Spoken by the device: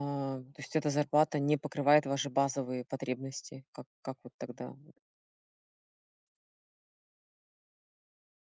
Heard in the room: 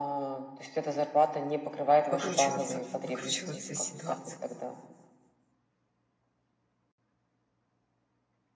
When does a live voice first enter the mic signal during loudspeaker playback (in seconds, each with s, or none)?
2.1 s